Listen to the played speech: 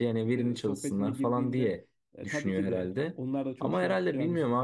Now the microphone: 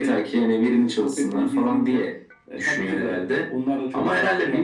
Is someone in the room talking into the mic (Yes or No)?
No